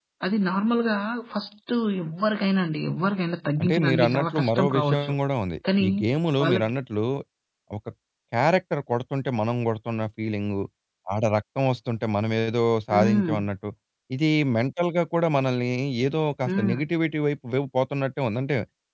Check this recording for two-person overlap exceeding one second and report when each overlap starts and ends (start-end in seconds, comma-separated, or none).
3.6-5.1